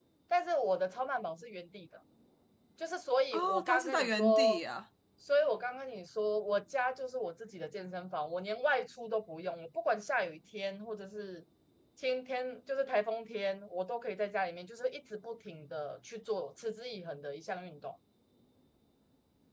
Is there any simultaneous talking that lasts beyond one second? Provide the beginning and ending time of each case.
3.3-4.6

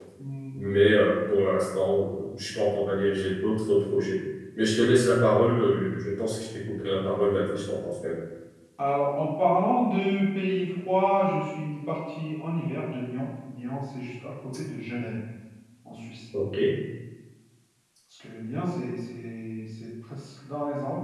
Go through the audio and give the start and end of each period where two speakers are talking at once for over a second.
none

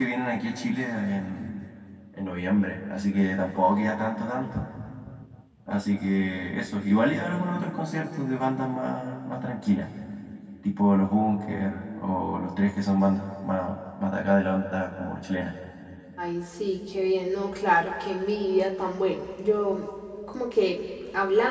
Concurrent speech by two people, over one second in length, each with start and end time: none

